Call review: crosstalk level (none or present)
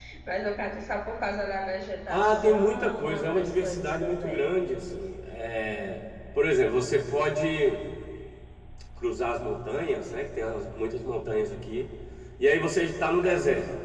present